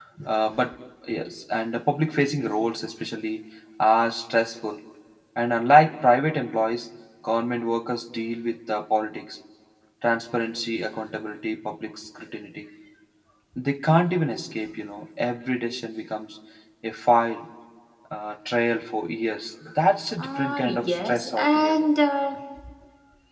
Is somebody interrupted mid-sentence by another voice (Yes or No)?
Yes